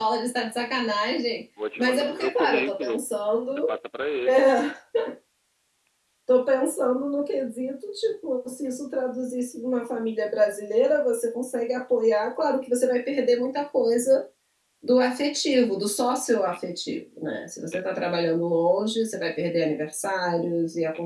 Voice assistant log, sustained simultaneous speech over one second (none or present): present